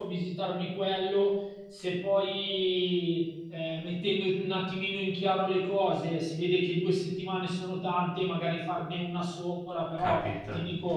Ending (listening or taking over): listening